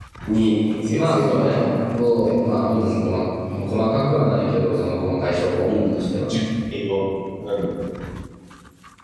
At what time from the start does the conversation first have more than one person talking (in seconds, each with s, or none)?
0.9 s